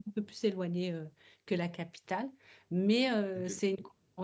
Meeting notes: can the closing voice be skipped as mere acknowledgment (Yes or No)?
Yes